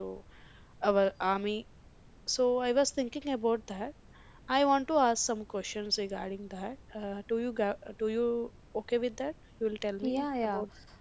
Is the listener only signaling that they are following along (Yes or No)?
No